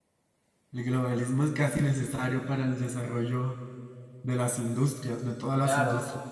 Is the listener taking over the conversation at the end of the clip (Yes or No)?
Yes